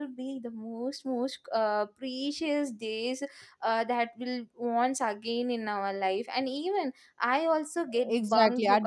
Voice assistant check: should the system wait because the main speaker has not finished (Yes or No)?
No